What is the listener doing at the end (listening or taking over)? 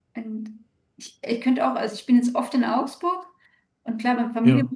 listening